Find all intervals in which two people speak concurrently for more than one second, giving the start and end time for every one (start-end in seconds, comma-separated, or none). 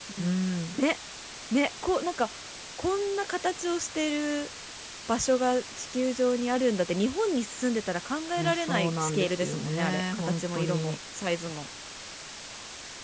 8.4-11.0